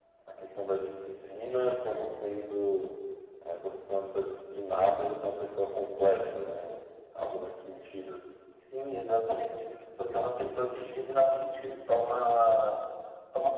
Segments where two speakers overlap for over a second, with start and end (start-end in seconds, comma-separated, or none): none